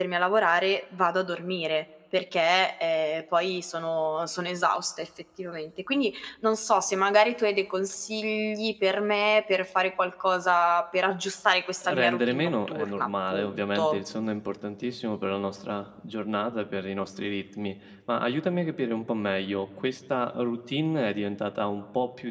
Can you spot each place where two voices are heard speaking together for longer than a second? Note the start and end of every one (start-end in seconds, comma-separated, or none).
11.8-14.0